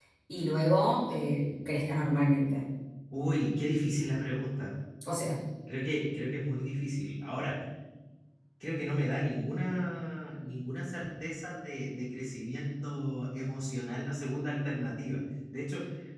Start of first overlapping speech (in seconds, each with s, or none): none